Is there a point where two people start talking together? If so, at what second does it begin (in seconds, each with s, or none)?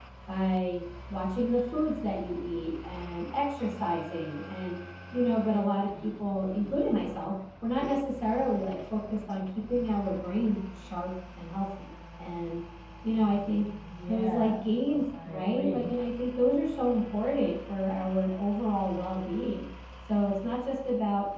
13.9 s